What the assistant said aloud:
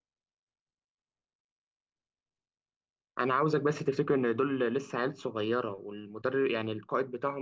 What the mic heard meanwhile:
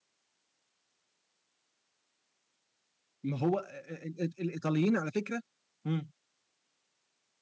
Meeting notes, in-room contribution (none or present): present